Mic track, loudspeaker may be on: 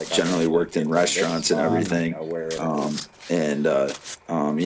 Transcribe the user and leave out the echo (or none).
Mhm.